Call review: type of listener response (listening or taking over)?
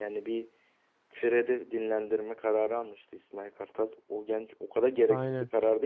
listening